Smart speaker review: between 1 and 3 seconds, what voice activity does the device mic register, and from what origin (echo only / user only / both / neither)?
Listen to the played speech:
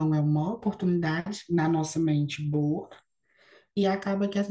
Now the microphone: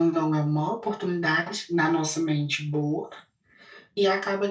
echo only